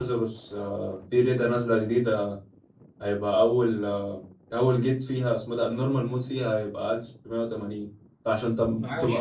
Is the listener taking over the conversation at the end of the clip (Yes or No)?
No